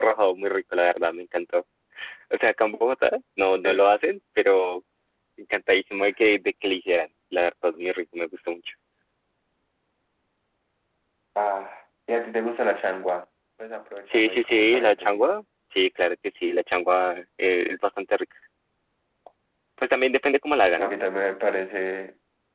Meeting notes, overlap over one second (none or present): present